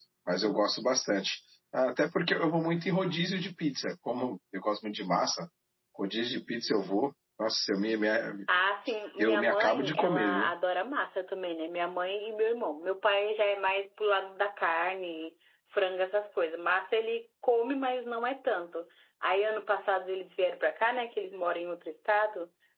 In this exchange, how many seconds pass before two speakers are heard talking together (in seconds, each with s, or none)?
9.2 s